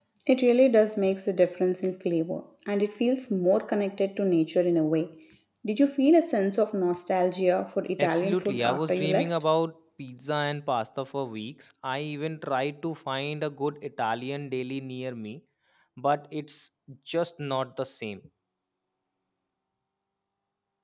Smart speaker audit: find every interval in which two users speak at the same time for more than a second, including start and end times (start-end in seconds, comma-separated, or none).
8.0-9.3